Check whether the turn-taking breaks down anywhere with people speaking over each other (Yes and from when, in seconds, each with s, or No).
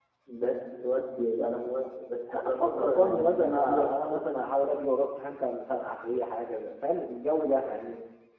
Yes, from 2.3 s